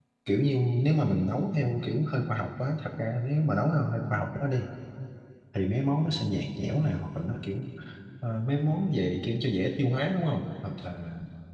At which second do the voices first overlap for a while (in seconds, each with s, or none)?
none